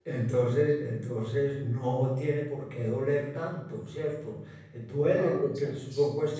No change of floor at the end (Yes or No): Yes